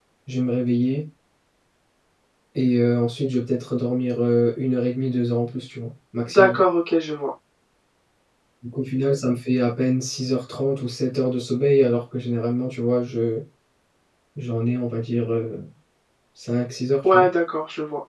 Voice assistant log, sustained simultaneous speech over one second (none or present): none